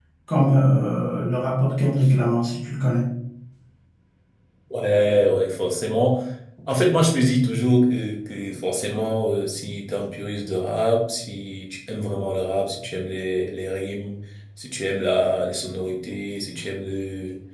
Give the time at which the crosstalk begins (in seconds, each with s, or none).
none